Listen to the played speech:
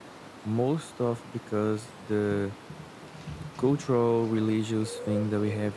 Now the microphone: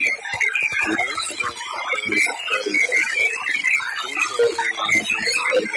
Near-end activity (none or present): none